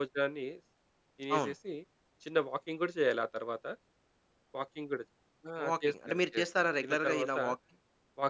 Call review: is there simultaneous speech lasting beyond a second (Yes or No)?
Yes